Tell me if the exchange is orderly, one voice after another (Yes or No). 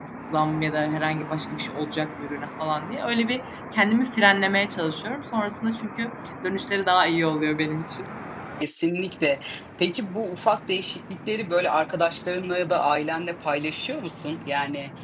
Yes